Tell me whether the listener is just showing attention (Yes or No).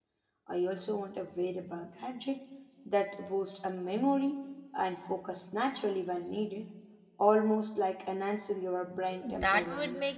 No